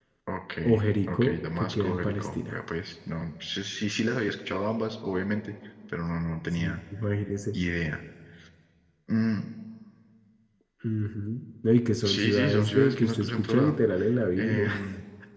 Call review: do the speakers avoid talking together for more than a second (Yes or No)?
No